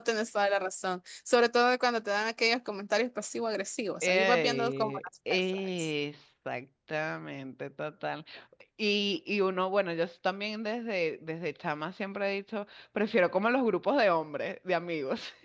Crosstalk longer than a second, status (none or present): present